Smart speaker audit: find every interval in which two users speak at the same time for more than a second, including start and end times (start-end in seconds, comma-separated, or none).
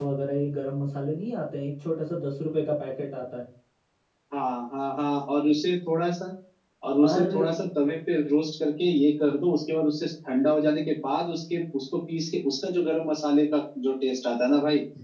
none